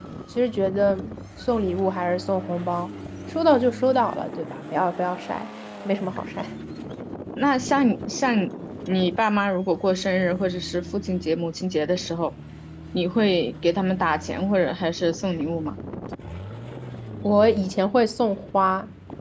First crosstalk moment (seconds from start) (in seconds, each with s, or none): none